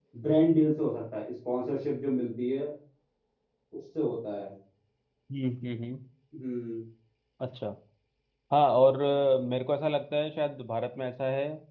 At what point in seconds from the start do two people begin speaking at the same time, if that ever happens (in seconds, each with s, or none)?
none